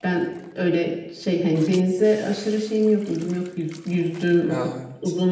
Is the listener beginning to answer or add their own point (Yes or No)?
No